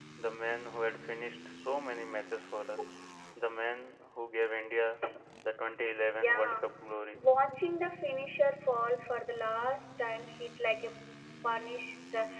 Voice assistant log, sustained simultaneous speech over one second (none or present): none